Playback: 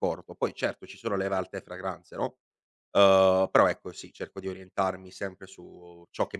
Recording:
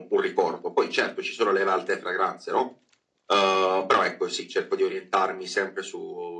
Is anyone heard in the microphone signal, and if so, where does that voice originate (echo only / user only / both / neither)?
echo only